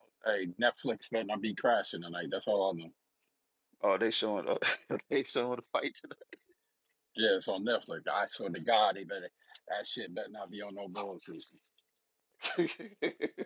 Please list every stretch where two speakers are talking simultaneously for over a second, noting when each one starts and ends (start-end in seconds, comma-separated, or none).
none